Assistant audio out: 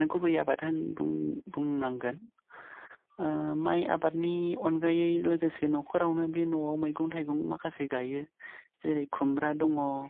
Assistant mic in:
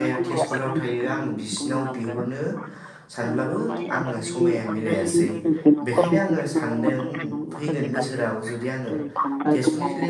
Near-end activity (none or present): present